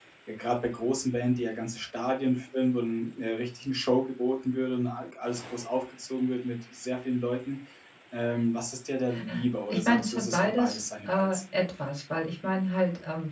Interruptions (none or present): present